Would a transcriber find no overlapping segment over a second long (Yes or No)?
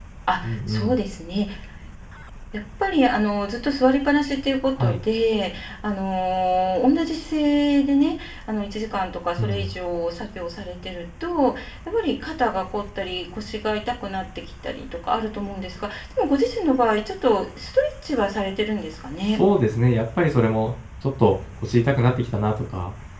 Yes